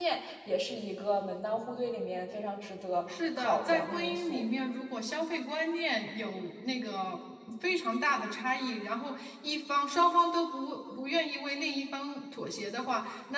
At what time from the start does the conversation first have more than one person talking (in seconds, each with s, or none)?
3.1 s